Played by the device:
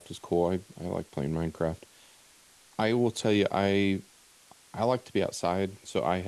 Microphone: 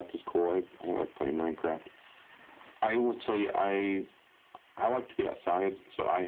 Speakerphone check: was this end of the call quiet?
Yes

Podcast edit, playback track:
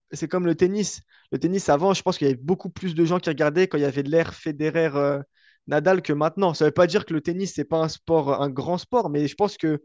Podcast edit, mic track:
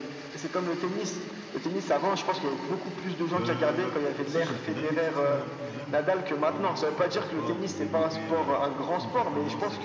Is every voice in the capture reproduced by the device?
No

